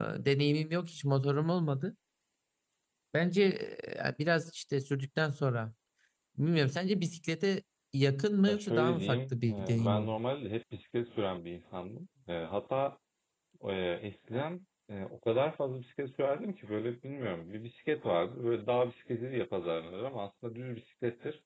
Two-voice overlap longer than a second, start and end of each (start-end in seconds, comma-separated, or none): 8.4-10.2